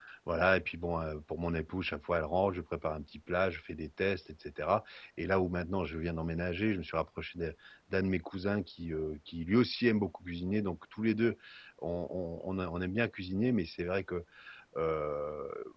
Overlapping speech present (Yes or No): No